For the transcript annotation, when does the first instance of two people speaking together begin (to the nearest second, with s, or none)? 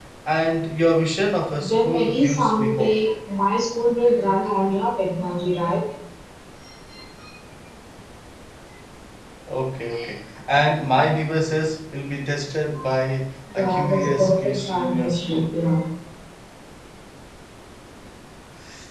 2 s